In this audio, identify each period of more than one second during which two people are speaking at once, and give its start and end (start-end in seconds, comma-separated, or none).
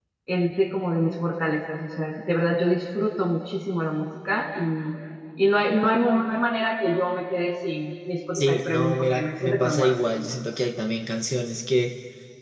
8.3-9.9